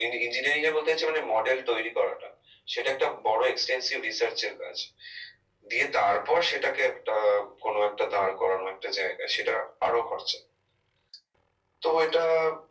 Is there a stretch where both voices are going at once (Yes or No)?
No